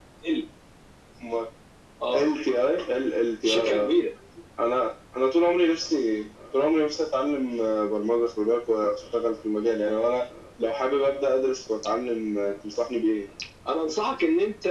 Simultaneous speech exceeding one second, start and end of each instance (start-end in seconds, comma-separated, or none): none